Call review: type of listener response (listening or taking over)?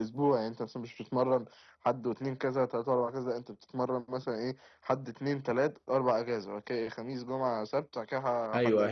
taking over